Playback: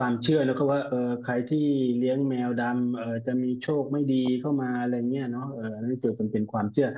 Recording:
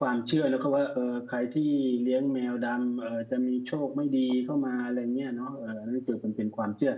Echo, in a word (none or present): present